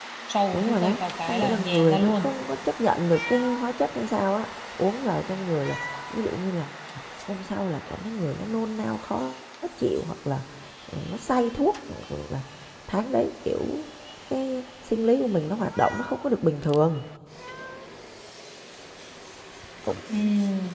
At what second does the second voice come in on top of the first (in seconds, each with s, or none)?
0.5 s